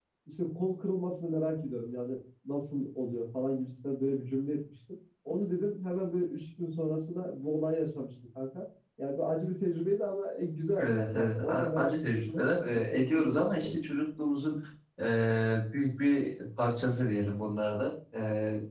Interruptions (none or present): present